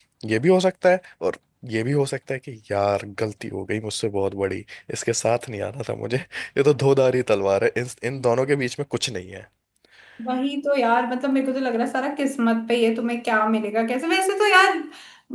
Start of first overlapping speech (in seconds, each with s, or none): none